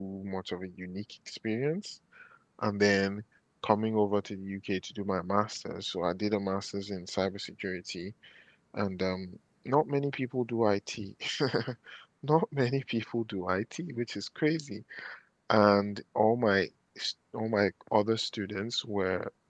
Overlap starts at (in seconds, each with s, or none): none